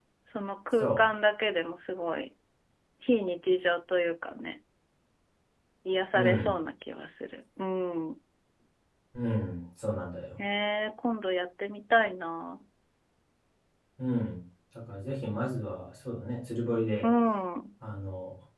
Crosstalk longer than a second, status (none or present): none